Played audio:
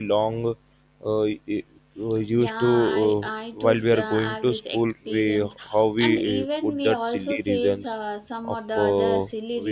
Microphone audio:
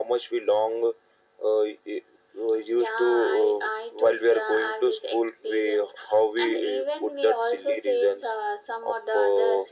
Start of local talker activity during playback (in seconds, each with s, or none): none